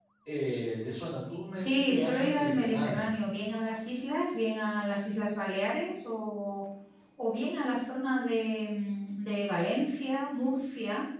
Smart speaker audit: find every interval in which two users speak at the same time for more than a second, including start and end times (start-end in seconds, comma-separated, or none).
1.6-3.1